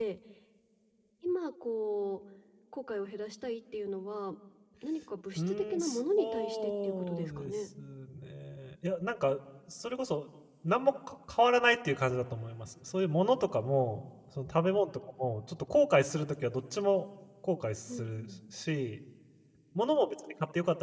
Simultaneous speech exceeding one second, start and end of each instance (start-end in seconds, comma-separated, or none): 5.4-7.5